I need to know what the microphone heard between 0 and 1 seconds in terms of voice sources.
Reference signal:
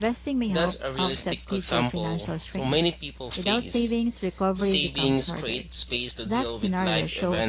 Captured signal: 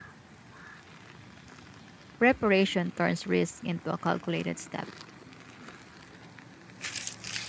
neither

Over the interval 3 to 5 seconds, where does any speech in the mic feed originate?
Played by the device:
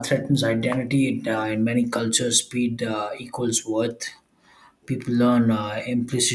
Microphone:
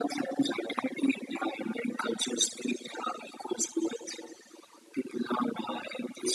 echo only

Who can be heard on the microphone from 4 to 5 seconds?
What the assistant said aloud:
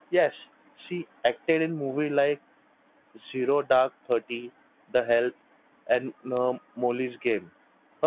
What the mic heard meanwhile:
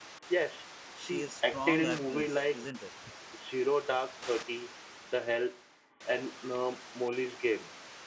echo only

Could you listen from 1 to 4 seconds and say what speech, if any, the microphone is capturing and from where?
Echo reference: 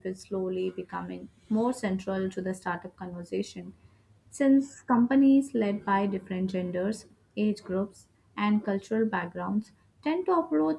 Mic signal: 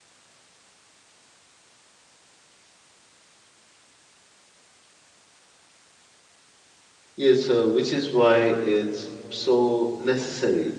neither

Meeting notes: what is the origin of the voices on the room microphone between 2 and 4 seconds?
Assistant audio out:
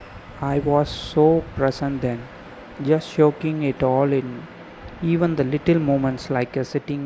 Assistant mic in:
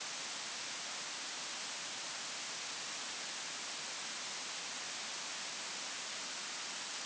neither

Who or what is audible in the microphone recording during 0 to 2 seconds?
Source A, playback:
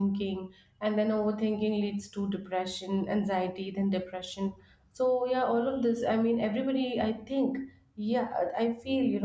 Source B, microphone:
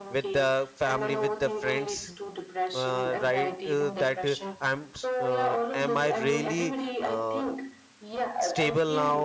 both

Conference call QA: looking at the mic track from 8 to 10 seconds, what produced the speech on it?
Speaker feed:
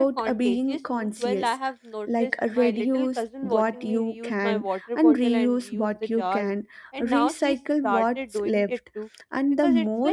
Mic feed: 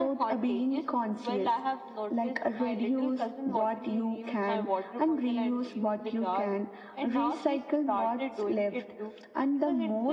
echo only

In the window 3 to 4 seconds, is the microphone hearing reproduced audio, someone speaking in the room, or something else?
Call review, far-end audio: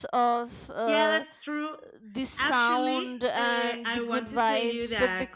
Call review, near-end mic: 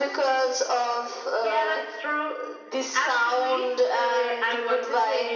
echo only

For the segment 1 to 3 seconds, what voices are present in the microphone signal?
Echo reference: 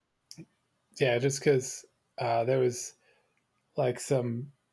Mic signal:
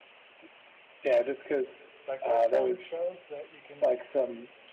both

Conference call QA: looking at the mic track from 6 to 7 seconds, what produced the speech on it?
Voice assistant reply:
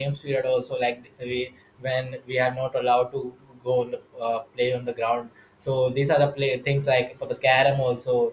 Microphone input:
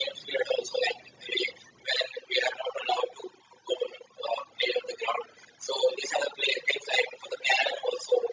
echo only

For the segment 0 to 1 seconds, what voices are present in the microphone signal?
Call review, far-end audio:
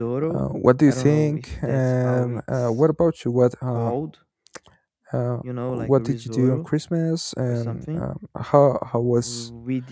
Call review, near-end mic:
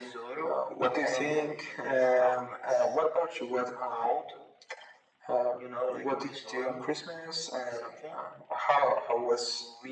echo only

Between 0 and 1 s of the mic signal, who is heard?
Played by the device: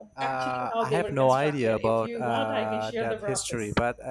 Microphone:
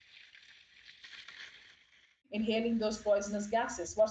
neither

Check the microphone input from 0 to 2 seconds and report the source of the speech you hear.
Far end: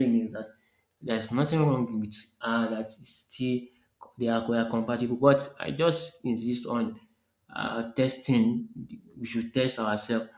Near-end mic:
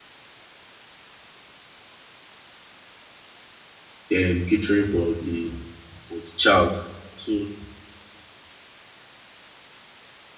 neither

